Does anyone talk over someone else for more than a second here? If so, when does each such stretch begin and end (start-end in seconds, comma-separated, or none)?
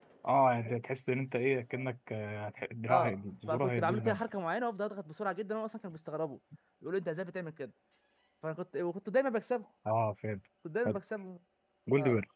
2.9-4.3